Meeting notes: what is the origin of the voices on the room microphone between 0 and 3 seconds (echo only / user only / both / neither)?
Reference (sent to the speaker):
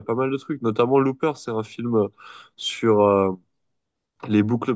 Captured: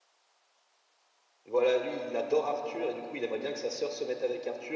user only